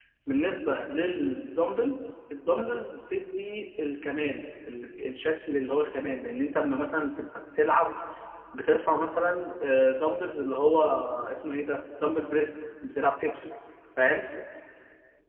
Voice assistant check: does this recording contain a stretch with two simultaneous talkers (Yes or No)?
No